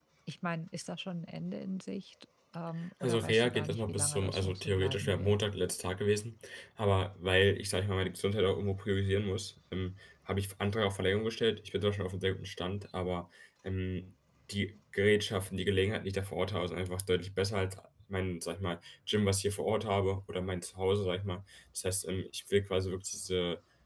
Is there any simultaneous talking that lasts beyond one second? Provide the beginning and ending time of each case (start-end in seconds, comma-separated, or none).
3.0-5.3